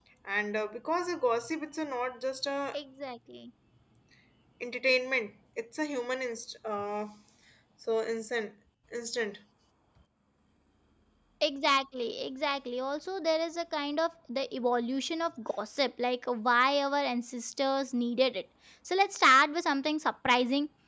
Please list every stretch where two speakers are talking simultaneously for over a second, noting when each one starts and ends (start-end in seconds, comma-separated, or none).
none